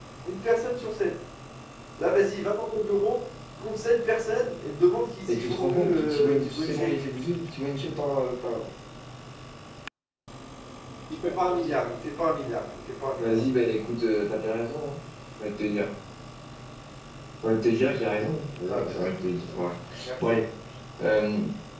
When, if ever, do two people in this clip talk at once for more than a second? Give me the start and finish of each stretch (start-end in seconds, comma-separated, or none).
5.3-6.9